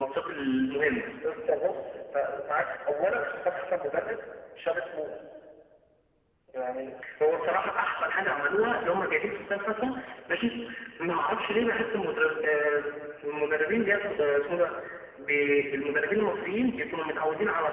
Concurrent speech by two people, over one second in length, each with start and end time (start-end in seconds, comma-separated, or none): none